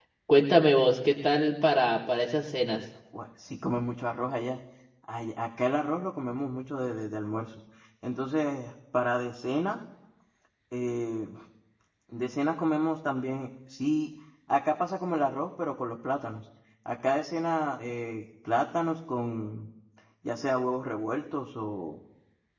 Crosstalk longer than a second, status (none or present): none